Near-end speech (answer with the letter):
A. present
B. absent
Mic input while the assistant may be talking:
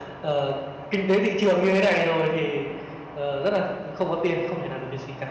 B